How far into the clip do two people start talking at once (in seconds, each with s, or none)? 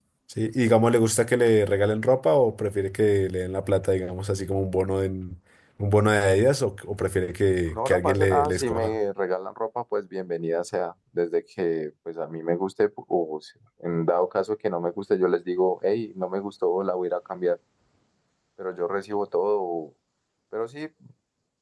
7.8 s